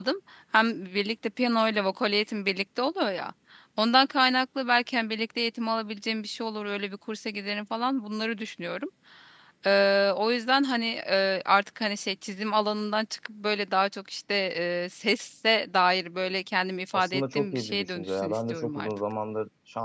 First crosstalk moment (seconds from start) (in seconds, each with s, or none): 16.9 s